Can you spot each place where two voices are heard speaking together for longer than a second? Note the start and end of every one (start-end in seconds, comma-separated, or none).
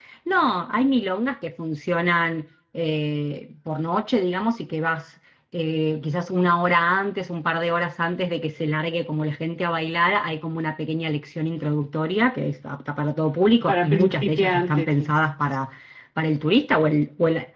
13.7-15.1